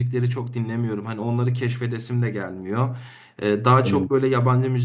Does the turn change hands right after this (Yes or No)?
No